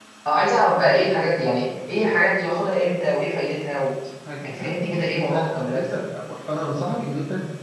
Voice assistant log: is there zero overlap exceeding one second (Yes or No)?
No